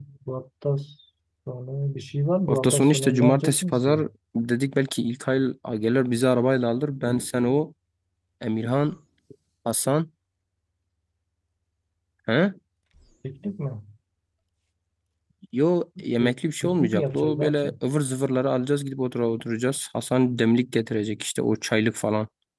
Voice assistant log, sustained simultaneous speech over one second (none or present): present